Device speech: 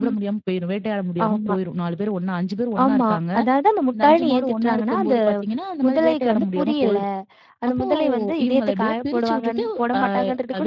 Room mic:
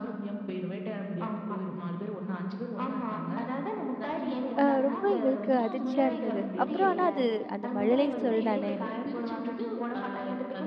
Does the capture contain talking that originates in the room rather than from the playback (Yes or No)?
Yes